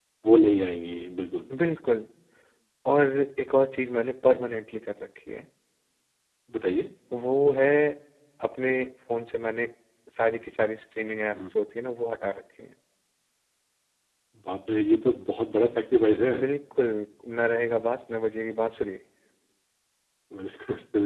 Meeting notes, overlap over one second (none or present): none